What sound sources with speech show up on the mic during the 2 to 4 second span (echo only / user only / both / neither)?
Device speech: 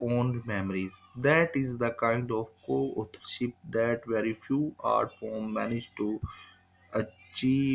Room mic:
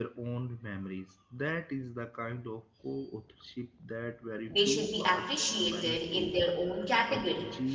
echo only